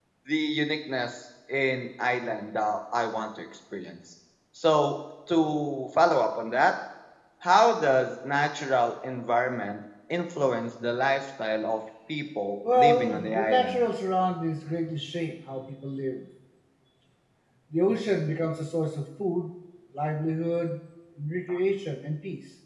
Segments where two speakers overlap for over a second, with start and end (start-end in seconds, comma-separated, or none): 12.6-13.8